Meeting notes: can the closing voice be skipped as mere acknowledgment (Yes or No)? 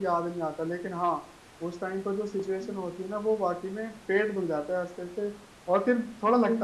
Yes